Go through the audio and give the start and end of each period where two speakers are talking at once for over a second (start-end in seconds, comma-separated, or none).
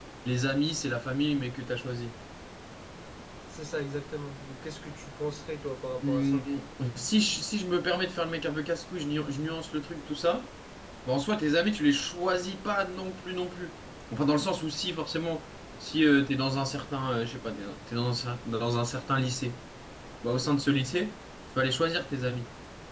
none